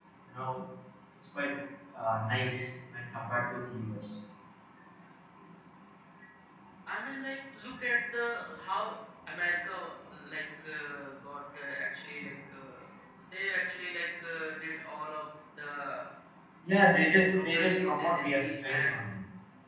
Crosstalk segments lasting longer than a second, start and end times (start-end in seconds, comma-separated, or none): 17.0-18.9